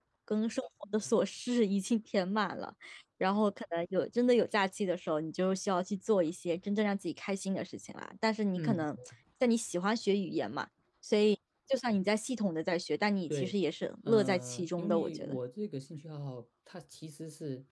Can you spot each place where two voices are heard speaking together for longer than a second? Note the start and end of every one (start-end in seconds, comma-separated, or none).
14.1-15.4